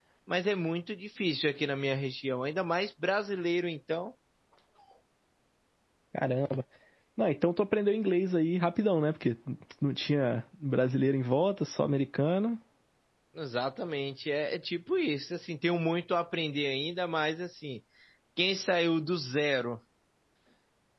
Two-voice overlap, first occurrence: none

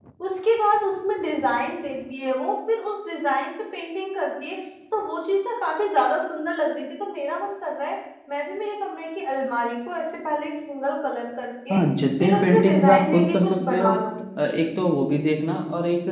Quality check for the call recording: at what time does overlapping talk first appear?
12.2 s

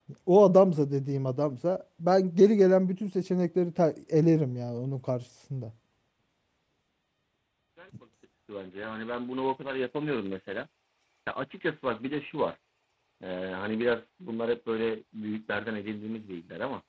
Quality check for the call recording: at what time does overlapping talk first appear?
none

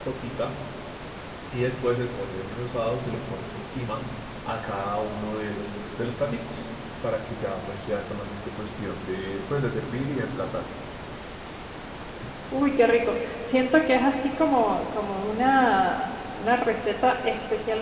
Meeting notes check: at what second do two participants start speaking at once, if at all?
none

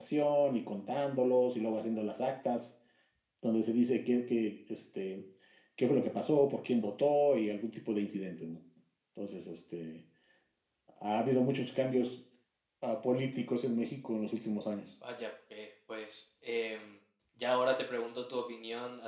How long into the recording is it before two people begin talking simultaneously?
none

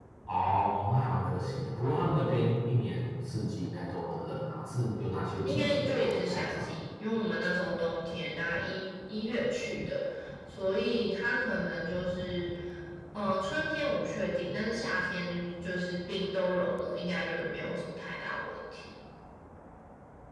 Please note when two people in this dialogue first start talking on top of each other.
5.4 s

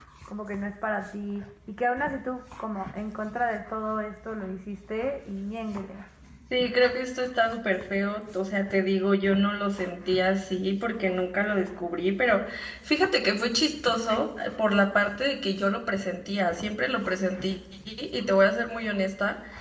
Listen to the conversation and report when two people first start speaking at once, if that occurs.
none

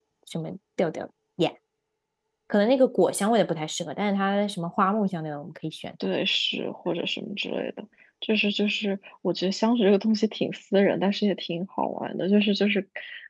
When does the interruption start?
none

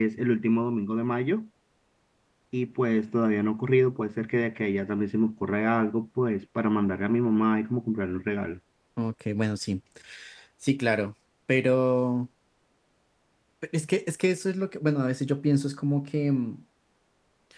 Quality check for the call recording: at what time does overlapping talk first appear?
none

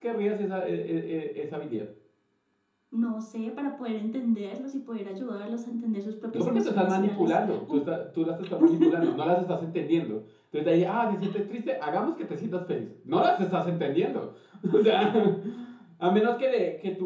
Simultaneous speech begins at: 6.3 s

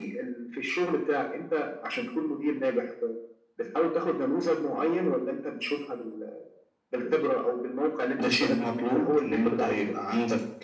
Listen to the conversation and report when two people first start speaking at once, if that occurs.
8.2 s

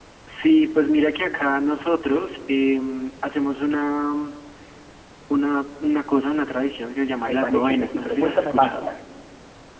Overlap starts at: 7.2 s

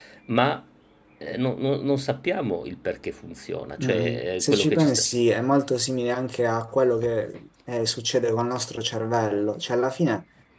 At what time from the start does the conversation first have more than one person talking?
3.8 s

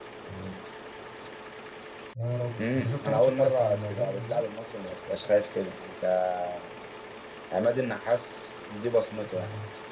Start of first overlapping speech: 2.6 s

